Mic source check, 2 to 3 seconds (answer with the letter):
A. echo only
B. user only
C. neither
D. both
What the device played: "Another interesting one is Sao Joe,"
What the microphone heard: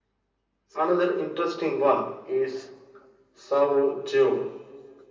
A